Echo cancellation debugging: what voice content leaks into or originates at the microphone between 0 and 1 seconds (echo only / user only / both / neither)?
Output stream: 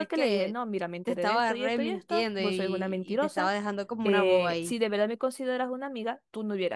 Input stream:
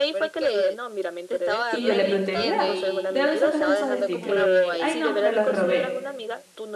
echo only